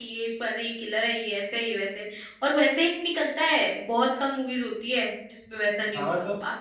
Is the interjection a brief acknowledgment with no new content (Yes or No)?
No